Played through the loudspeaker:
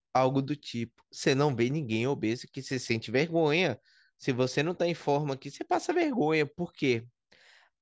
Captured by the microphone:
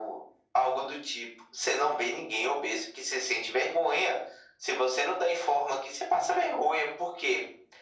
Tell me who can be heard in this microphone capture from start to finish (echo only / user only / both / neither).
echo only